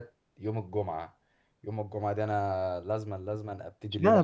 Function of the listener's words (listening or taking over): taking over